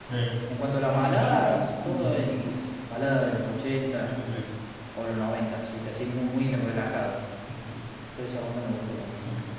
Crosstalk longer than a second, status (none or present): present